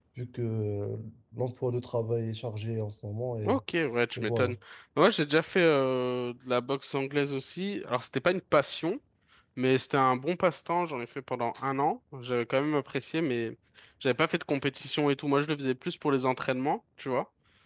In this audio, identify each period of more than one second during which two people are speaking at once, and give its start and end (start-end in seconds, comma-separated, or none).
none